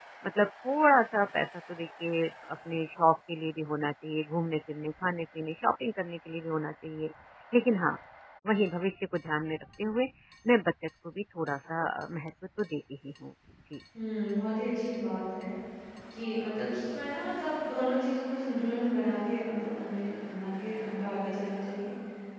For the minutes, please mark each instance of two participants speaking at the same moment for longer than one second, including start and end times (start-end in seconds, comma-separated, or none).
none